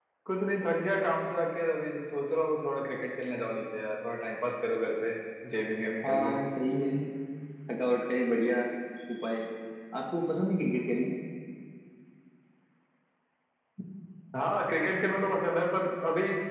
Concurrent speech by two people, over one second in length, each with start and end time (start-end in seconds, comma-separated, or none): none